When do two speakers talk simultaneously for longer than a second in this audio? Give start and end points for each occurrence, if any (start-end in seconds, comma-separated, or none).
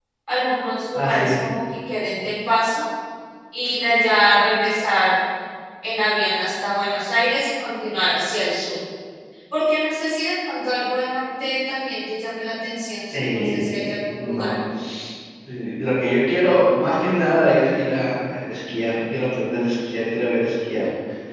13.1-14.5